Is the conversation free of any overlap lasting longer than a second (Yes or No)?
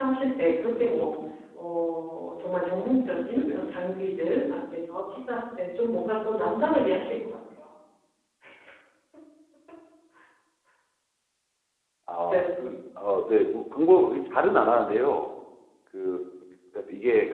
Yes